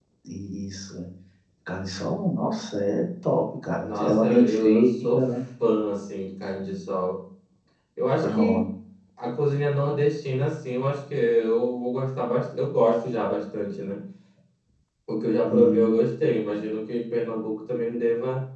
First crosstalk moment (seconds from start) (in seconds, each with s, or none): 3.8 s